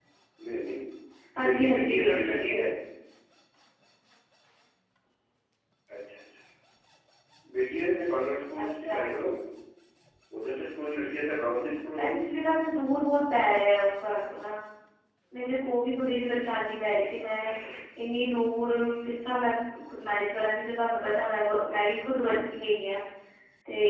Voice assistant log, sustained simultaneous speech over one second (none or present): present